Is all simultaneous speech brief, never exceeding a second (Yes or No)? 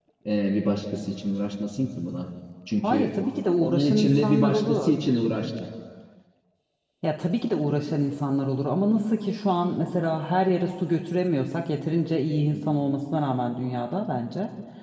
No